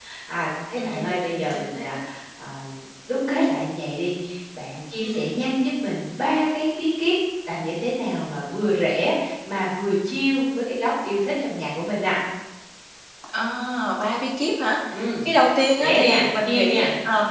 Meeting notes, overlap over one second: present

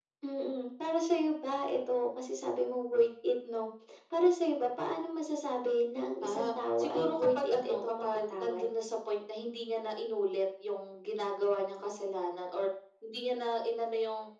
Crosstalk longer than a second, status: present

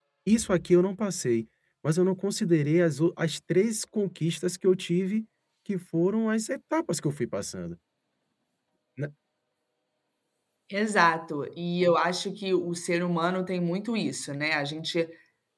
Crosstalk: none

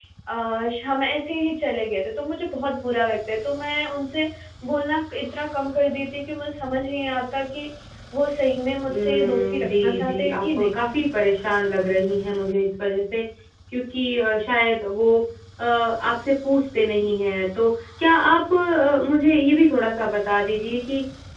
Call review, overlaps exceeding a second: present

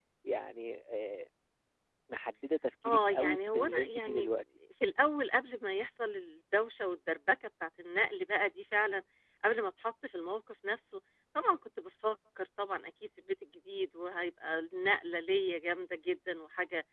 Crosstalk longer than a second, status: present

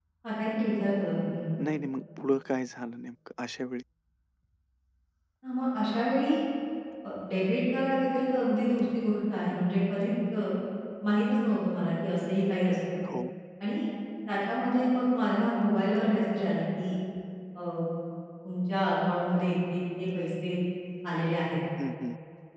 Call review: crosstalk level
none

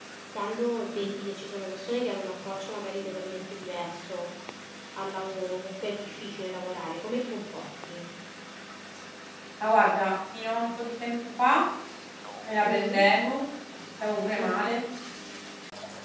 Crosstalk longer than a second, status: none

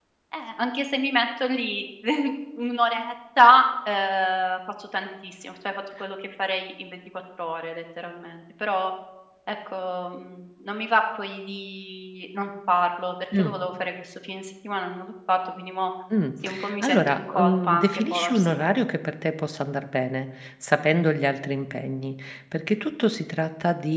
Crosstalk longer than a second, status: present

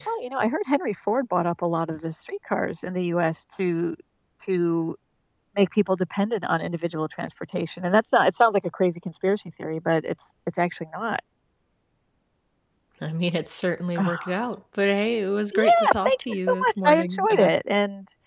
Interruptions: present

